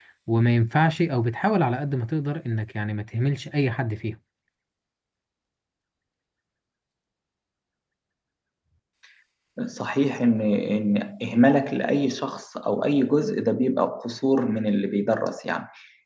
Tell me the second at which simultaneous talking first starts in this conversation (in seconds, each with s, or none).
none